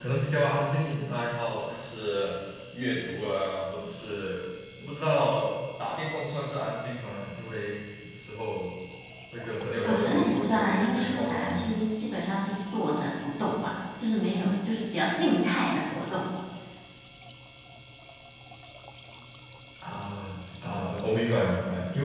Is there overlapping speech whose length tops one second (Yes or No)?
Yes